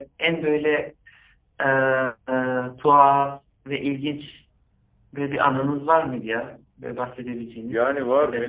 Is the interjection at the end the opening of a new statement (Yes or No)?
Yes